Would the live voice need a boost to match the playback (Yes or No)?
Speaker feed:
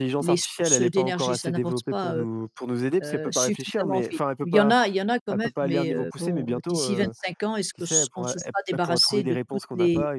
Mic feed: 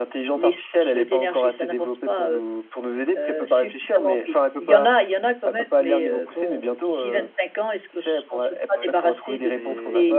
Yes